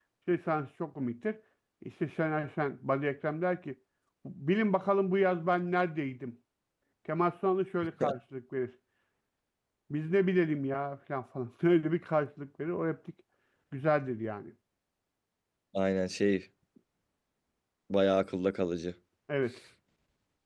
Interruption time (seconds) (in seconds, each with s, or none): none